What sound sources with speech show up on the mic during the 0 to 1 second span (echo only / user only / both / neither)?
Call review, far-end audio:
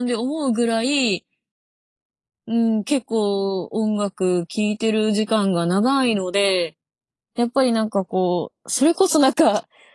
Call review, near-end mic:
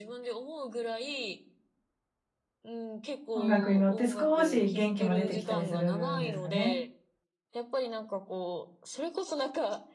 echo only